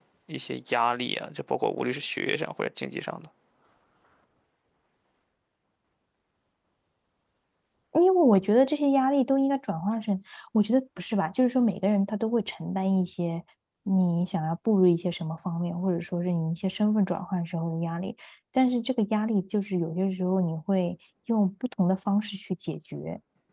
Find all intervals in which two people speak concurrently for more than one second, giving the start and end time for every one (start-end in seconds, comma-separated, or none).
none